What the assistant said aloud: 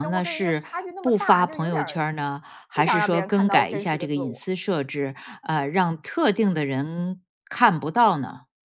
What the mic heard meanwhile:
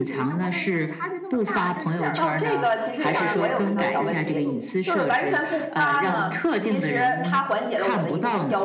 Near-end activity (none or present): present